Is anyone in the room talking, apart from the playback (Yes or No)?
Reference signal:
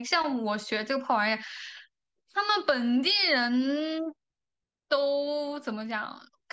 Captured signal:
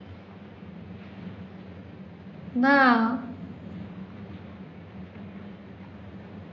Yes